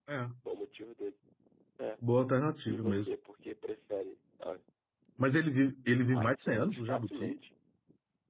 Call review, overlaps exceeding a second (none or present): present